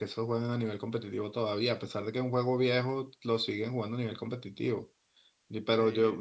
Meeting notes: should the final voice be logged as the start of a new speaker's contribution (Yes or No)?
No